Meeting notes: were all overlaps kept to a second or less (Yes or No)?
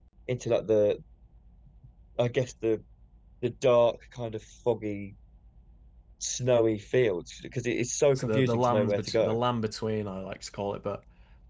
No